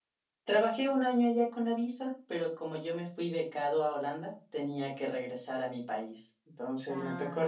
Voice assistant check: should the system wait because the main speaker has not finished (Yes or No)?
Yes